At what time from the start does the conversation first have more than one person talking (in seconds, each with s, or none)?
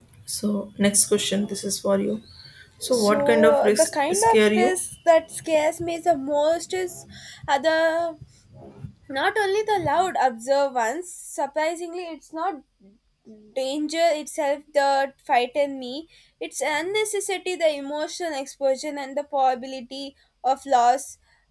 2.9 s